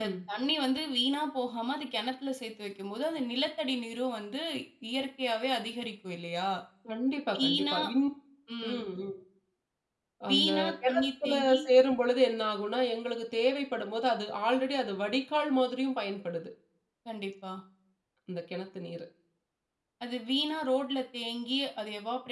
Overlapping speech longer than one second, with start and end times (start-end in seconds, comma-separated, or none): 10.3-11.6